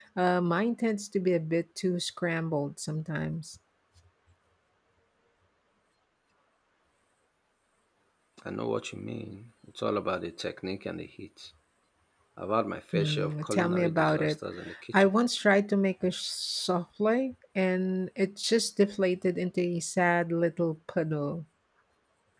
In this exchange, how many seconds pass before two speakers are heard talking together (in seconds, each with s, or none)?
12.9 s